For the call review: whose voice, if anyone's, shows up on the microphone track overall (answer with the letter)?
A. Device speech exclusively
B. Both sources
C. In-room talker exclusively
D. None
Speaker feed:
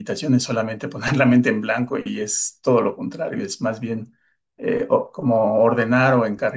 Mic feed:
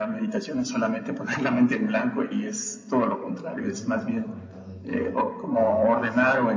B